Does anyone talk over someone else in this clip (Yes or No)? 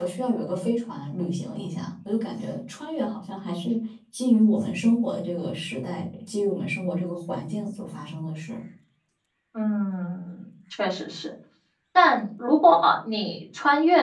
No